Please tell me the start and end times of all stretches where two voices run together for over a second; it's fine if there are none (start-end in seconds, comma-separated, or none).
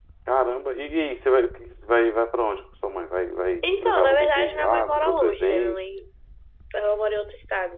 3.6-5.8